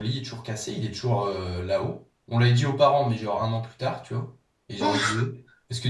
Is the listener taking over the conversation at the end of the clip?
No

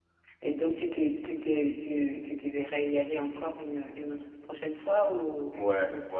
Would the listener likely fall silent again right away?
No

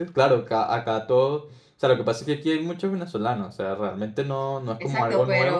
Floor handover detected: Yes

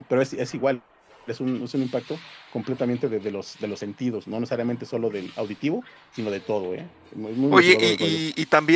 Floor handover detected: Yes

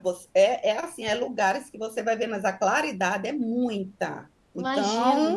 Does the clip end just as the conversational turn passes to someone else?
Yes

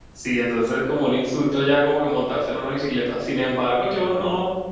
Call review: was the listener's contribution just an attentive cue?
Yes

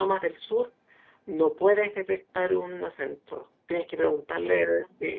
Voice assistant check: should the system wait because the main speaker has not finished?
Yes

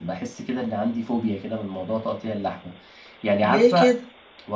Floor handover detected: No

